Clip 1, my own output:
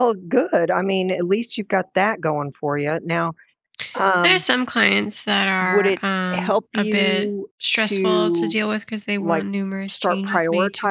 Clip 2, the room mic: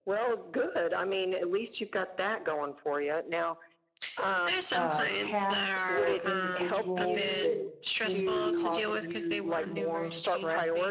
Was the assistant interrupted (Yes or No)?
Yes